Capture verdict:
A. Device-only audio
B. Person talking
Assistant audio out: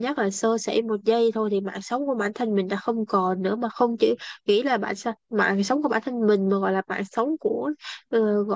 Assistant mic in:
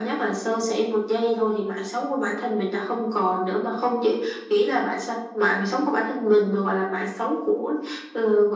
A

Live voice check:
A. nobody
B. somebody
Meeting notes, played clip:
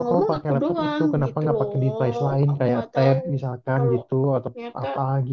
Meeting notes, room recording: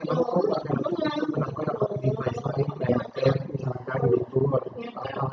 A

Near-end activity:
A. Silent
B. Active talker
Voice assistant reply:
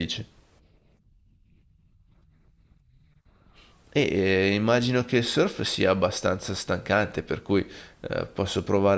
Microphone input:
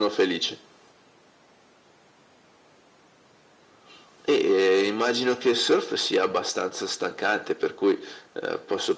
A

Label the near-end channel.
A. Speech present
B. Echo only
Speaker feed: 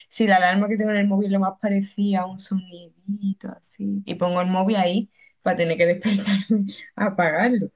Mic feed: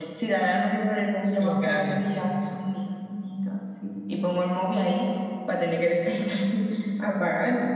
A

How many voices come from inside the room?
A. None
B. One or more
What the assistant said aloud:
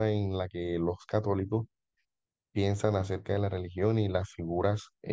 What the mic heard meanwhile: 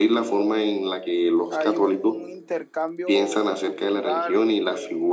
B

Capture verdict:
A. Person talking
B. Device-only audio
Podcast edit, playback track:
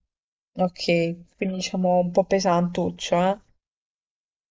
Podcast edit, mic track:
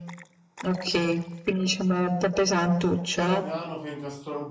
A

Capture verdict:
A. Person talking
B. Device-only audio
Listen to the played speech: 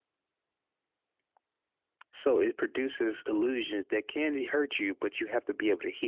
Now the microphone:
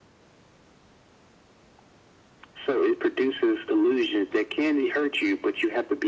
B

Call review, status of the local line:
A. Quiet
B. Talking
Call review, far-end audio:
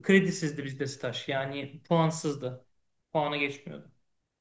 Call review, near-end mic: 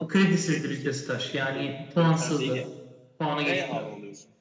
B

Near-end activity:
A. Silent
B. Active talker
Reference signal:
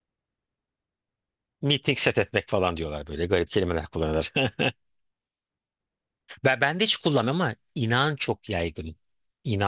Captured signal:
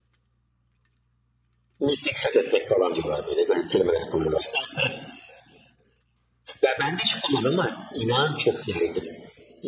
A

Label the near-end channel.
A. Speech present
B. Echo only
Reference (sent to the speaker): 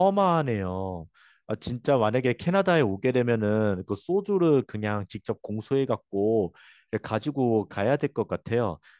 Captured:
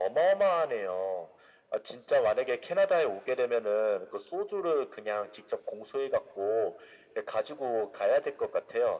B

